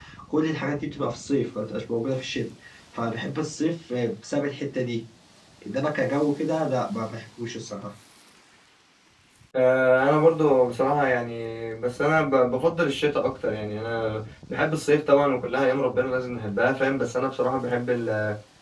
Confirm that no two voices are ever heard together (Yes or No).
Yes